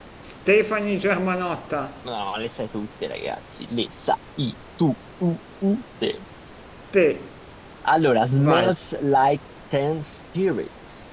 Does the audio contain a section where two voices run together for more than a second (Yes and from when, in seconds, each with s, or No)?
No